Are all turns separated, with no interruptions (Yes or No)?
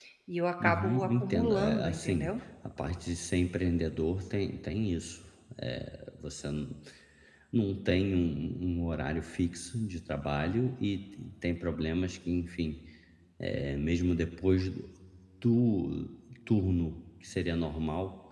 No